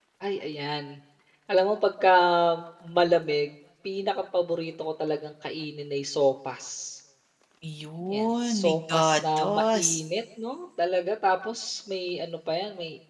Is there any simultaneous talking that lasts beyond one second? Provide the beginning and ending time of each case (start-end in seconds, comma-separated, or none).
8.1-10.0